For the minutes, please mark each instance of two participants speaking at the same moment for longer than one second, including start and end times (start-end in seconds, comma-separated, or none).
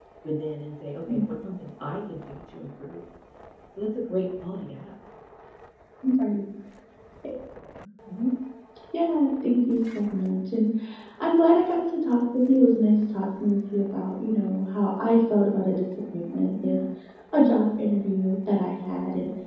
none